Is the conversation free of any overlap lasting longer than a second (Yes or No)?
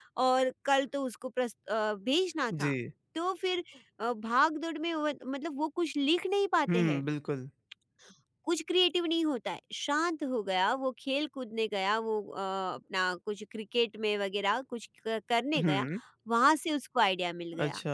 Yes